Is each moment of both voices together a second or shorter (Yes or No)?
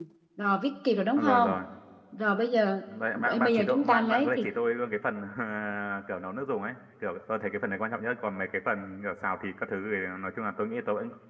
No